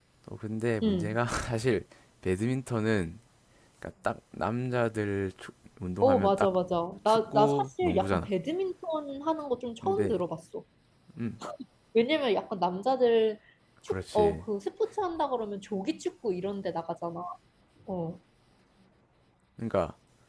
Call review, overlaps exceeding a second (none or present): present